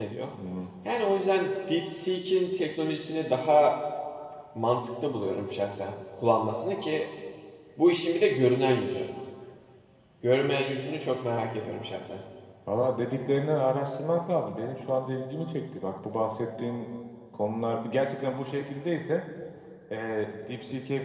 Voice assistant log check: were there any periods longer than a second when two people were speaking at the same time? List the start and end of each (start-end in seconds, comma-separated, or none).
none